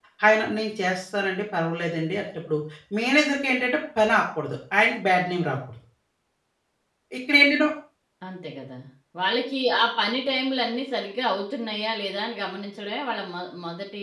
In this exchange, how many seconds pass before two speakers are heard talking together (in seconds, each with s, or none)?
none